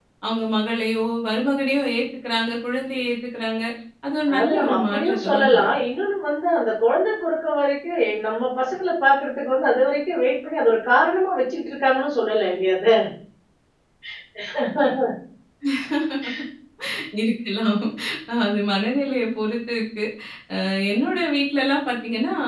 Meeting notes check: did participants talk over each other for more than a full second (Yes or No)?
Yes